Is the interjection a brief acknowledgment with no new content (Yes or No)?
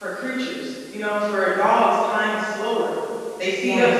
Yes